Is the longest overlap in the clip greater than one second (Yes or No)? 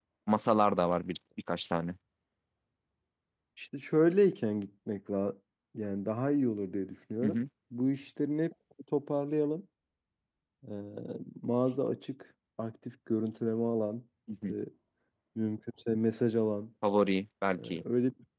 No